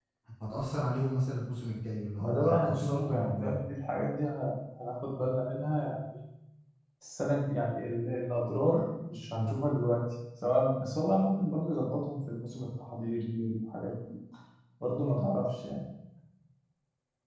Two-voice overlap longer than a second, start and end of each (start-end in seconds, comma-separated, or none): 2.2-3.6